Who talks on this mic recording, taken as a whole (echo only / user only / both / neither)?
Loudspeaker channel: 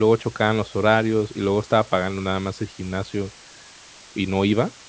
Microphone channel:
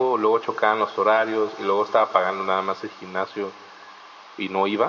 echo only